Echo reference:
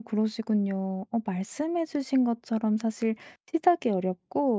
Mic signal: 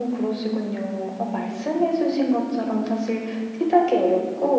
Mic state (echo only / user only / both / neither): echo only